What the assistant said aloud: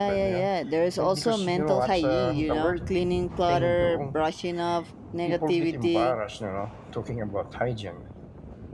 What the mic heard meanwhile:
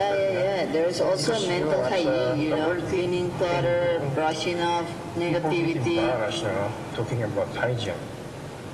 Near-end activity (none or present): none